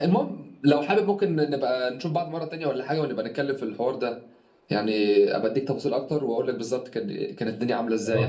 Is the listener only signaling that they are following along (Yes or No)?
No